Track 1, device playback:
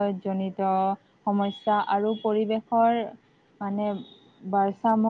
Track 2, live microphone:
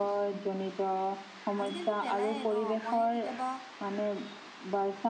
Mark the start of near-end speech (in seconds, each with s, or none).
1.6 s